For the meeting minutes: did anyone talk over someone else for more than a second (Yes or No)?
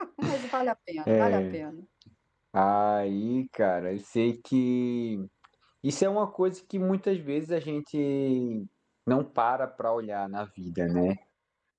No